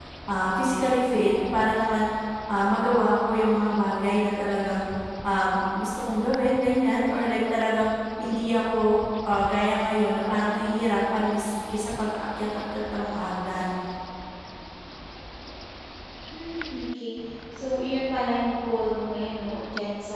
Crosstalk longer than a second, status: none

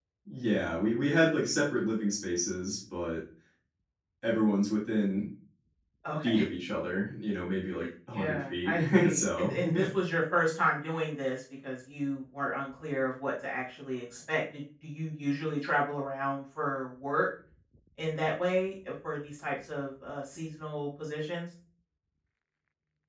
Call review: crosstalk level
present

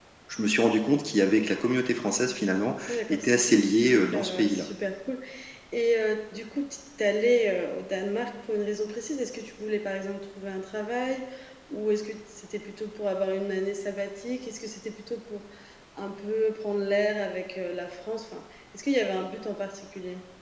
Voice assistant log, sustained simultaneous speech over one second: present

